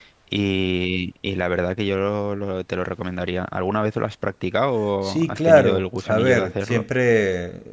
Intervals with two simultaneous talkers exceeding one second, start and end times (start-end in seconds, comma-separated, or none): 5.0-6.8